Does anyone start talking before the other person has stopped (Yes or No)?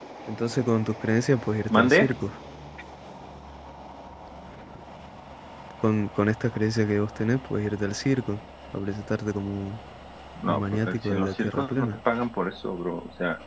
Yes